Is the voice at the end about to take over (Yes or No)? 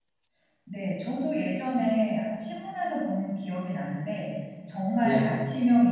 No